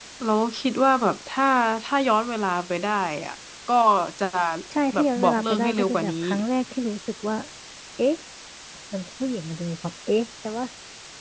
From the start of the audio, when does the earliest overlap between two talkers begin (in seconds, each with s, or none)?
4.9 s